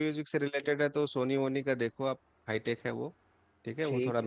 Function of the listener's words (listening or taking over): listening